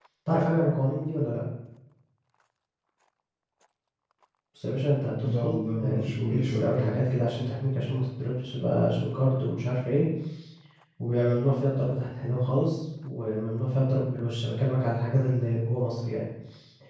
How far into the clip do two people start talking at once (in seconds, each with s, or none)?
5.2 s